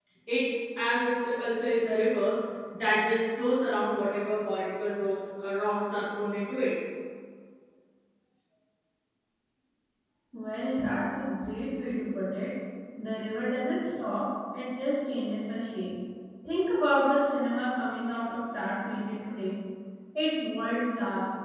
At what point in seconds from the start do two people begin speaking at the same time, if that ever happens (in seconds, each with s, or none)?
none